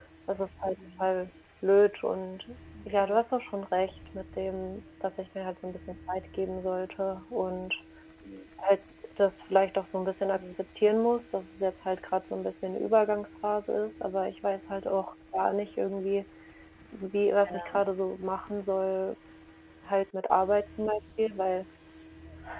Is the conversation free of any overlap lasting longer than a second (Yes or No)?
Yes